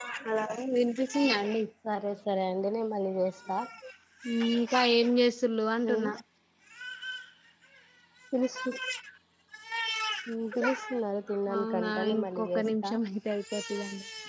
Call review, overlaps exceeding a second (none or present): present